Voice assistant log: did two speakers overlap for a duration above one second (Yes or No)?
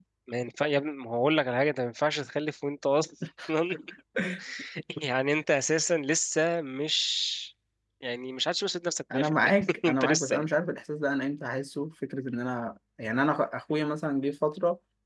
Yes